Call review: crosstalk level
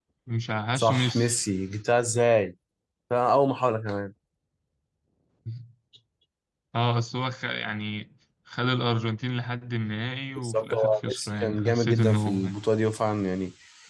present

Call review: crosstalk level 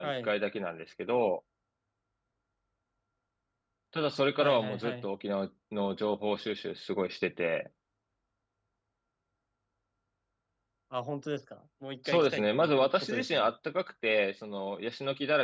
present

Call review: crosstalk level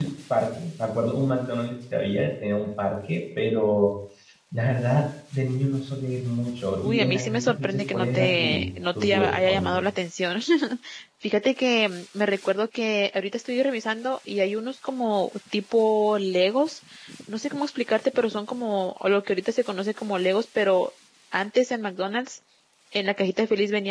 present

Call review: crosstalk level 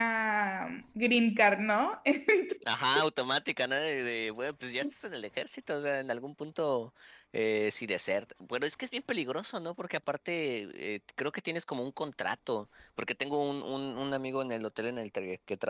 none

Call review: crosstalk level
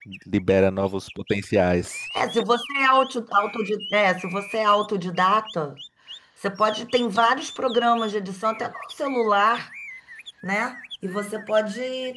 none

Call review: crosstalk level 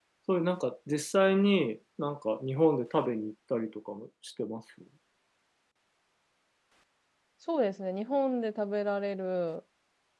none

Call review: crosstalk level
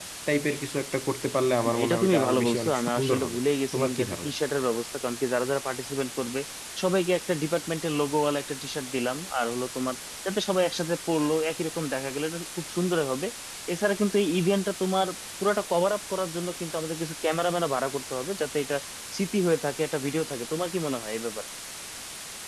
present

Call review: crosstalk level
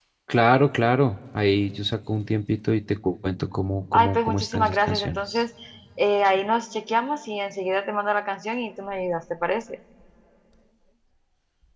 present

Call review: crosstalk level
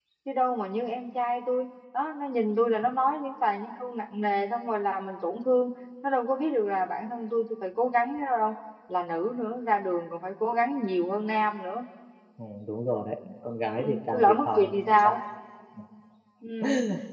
present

